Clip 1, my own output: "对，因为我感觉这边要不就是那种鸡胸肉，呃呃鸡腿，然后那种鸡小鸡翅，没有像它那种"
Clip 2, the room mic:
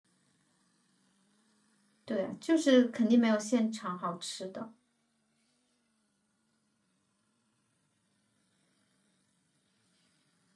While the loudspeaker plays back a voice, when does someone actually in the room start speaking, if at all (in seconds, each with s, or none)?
2.0 s